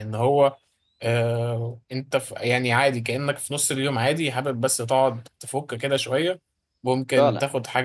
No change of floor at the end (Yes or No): Yes